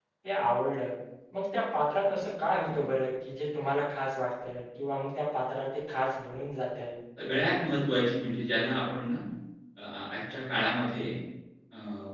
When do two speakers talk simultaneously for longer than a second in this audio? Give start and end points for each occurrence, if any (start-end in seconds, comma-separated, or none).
none